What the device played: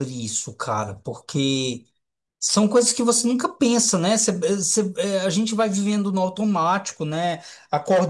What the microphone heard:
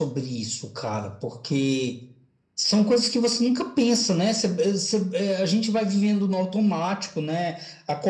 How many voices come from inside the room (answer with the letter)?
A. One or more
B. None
B